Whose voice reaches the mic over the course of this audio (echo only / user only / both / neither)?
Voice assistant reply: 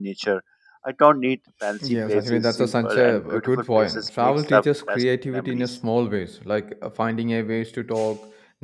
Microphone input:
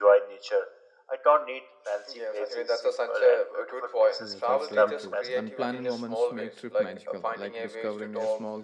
both